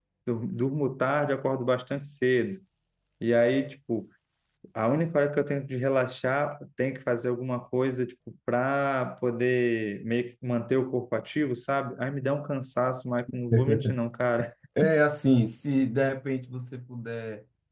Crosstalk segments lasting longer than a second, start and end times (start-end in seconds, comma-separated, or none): none